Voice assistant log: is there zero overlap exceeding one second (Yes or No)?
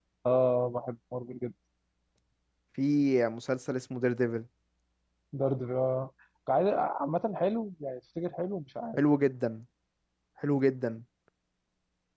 Yes